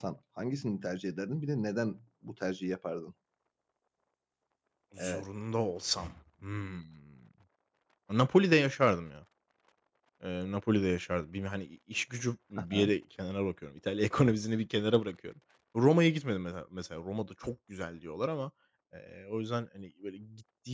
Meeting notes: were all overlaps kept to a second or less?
Yes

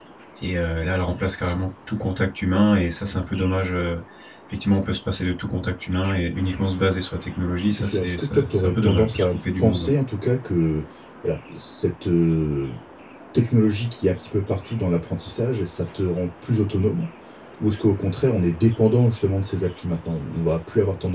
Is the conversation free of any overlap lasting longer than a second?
No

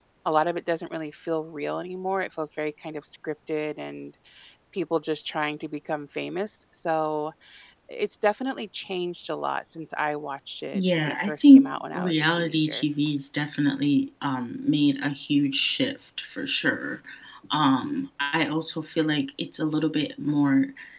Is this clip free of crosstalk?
No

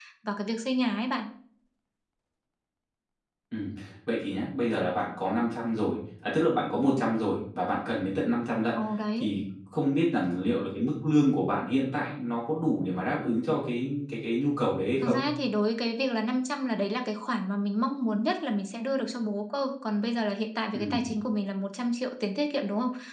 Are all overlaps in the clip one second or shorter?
Yes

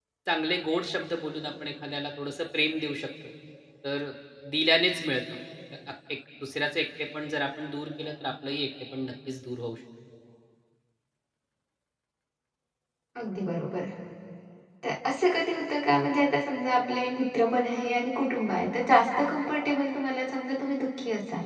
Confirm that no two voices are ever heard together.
Yes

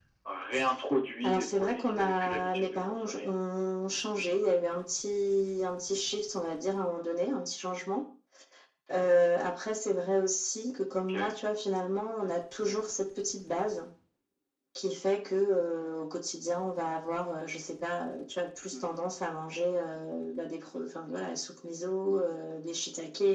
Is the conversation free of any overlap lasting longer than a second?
No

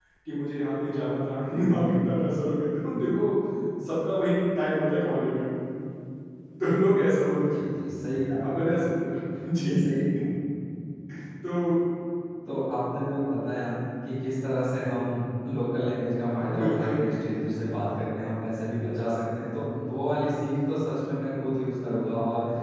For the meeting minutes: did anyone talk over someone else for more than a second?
No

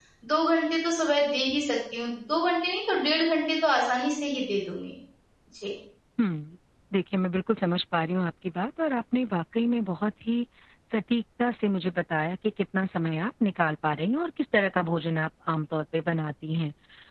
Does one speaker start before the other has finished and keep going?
No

